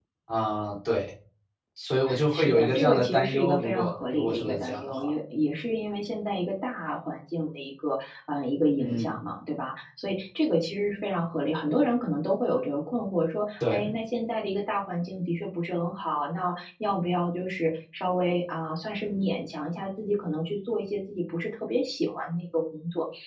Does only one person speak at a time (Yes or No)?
No